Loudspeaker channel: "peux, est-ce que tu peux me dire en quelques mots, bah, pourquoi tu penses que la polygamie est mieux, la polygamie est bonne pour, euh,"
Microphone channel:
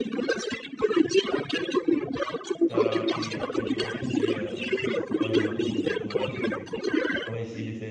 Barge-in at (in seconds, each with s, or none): 2.7 s